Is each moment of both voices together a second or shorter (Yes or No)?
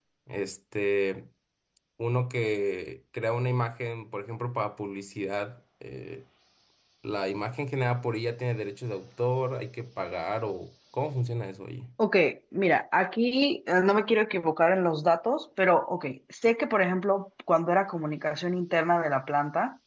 Yes